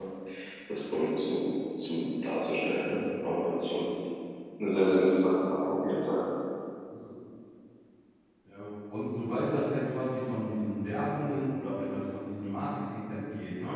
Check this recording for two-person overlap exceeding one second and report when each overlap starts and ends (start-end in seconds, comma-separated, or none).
none